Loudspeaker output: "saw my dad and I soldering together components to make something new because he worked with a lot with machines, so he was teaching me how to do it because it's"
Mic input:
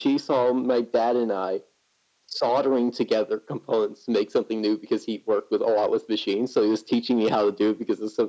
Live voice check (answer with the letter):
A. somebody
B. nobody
B